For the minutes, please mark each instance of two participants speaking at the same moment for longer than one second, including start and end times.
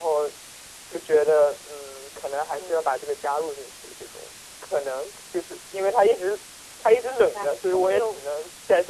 6.8-8.2

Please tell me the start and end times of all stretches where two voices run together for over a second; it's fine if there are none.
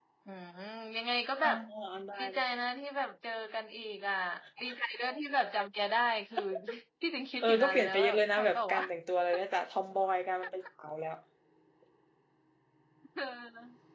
7.4-8.8

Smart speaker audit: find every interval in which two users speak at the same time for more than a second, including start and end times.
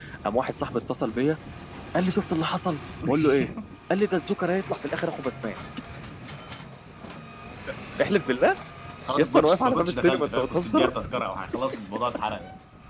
9.2-10.9

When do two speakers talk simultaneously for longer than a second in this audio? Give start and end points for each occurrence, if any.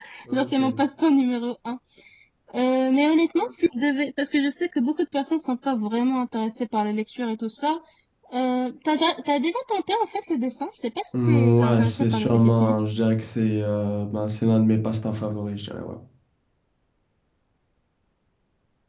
11.2-12.7

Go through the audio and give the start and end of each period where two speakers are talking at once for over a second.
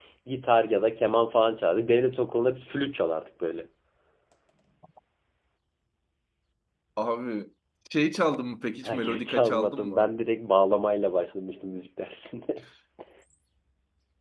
8.8-10.1

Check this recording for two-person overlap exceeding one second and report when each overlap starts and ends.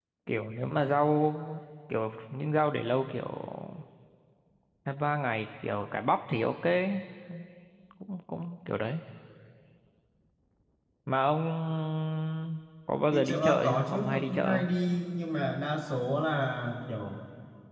13.1-14.7

